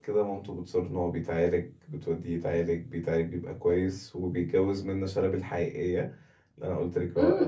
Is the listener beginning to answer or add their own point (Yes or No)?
Yes